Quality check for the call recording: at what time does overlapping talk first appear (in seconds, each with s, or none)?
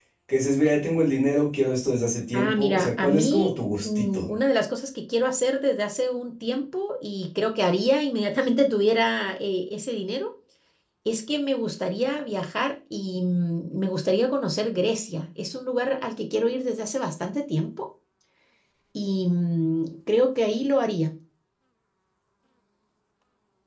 2.3 s